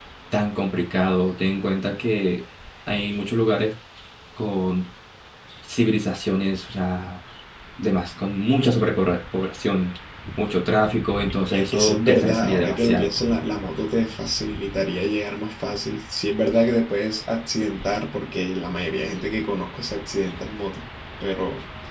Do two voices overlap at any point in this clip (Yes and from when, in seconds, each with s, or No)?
Yes, from 11.5 s